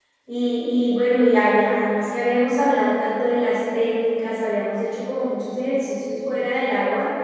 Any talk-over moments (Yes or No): No